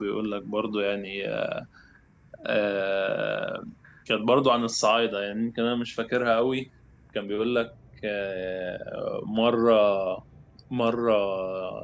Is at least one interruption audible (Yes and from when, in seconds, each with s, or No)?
No